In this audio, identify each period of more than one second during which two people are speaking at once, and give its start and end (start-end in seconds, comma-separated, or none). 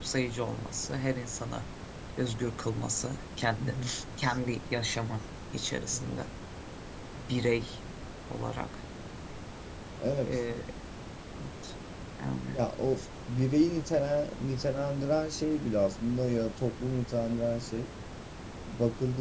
none